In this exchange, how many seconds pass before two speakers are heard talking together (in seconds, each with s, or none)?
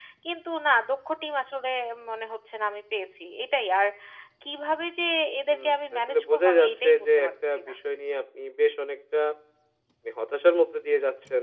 5.5 s